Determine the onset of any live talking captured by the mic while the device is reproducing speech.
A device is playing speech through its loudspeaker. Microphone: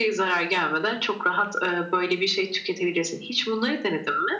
none

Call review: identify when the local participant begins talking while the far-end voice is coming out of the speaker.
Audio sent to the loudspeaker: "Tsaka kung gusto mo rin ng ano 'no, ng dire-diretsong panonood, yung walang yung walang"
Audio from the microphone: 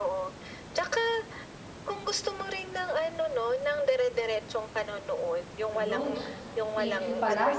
5.7 s

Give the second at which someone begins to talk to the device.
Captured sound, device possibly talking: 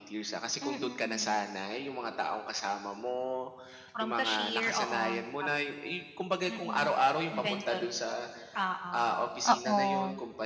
9.4 s

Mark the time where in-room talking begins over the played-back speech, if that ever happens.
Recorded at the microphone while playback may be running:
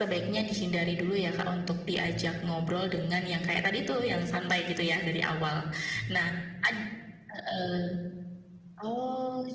none

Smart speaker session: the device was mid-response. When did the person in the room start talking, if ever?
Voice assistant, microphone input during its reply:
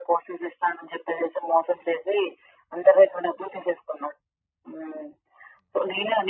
none

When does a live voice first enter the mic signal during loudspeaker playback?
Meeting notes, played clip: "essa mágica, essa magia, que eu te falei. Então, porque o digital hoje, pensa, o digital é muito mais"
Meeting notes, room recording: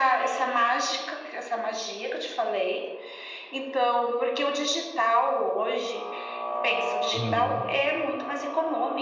7.1 s

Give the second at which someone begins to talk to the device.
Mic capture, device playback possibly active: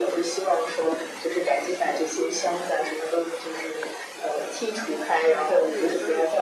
5.2 s

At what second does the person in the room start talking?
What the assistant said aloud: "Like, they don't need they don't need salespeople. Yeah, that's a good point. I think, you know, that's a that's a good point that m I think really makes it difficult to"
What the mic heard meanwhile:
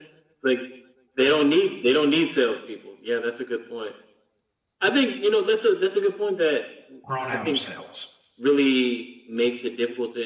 7.0 s

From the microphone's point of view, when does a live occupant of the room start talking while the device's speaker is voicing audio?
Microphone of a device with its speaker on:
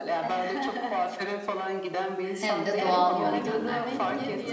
2.4 s

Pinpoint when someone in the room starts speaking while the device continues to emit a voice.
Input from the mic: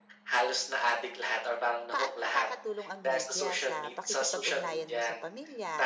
1.9 s

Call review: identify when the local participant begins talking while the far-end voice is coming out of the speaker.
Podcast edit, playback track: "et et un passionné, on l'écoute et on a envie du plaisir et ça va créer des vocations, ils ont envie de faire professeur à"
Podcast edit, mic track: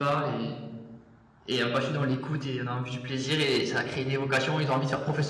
none

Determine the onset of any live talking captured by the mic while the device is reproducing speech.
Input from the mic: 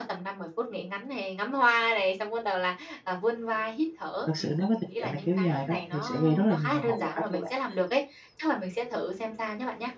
4.2 s

